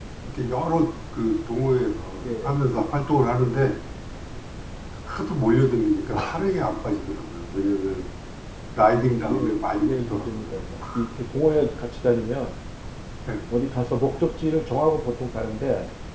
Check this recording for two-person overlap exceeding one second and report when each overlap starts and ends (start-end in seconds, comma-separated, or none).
9.2-10.5